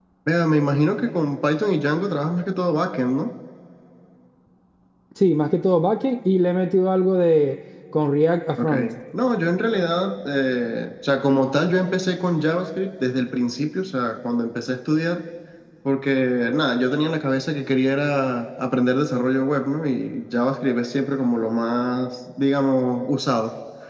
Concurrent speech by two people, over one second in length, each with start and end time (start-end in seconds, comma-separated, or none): none